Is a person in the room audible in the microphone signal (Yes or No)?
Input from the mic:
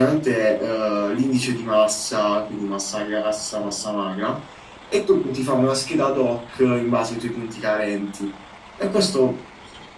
No